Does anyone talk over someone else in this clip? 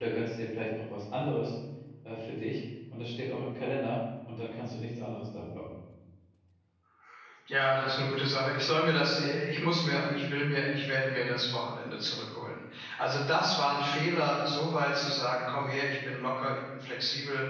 No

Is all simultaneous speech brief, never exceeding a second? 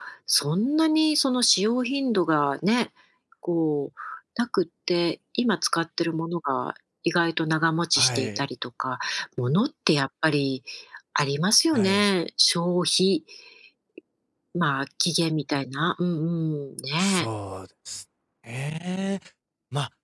Yes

